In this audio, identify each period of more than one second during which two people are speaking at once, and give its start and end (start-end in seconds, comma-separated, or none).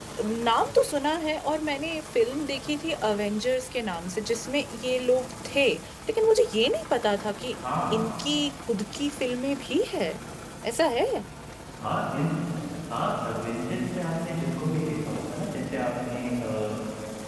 none